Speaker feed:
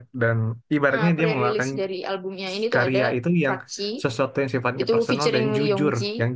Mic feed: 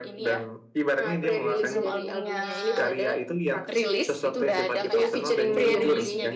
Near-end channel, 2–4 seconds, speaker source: both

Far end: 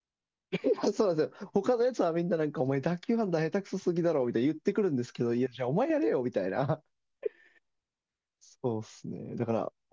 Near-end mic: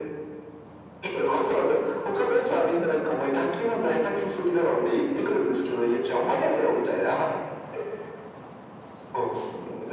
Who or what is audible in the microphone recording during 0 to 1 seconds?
neither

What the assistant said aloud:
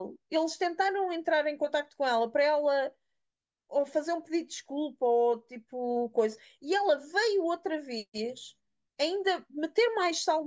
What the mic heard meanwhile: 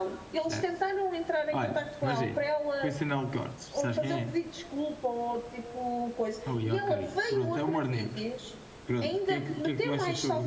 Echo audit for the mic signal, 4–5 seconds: both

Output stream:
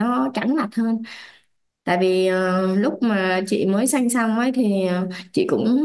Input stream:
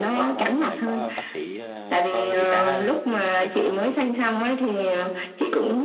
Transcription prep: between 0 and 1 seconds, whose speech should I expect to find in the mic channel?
both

